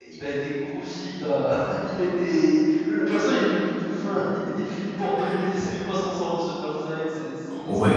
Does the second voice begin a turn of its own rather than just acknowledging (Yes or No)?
Yes